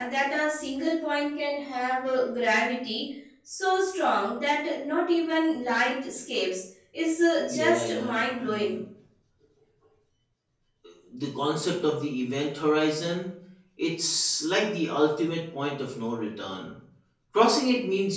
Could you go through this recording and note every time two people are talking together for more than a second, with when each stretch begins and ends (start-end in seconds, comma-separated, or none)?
7.5-8.7